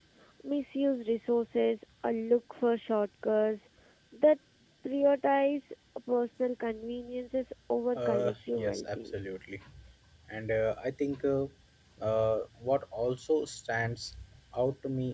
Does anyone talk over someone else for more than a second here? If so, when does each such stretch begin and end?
8.0-9.2

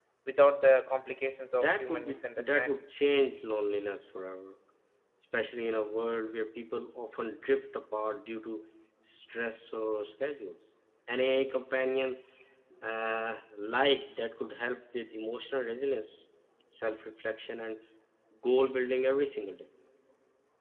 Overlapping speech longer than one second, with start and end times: 1.5-2.8

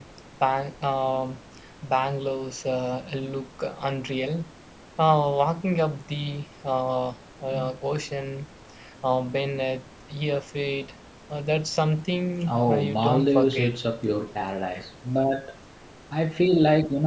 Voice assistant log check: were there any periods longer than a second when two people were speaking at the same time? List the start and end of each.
12.5-13.7

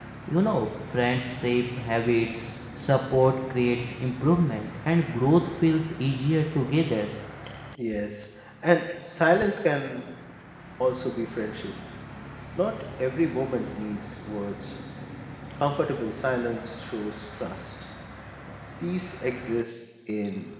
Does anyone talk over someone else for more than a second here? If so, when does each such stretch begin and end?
none

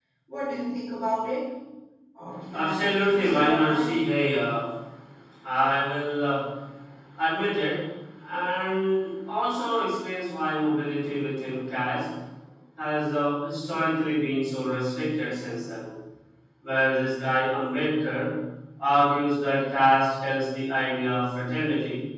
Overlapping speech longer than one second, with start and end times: 2.5-3.8

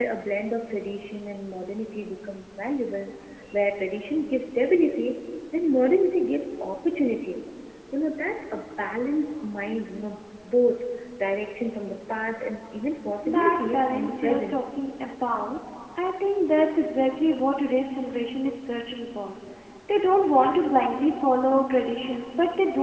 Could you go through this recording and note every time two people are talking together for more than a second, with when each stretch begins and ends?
13.4-14.6

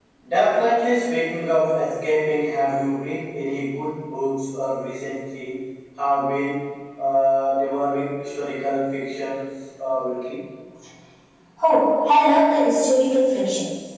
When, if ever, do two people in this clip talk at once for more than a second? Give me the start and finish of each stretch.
none

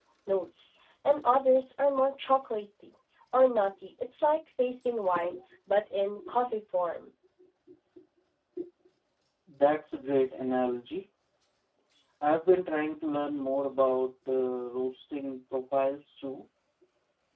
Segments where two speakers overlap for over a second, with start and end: none

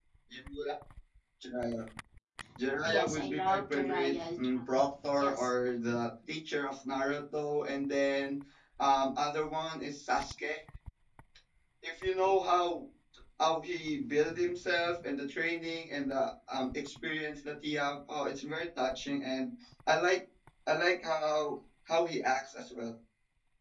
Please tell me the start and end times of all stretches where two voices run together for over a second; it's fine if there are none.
2.8-4.1

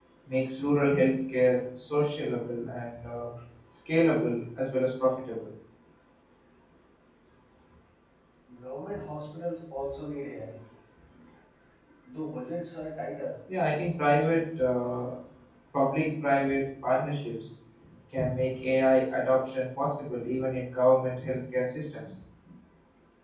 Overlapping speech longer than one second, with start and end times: none

